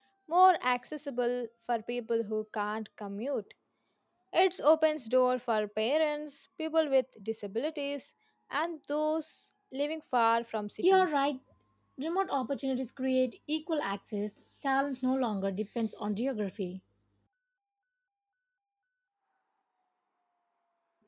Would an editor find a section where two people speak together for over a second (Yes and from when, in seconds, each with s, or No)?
No